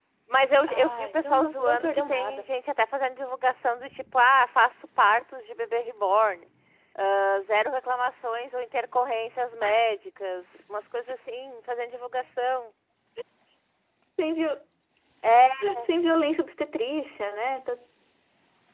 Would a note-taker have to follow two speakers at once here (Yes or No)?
Yes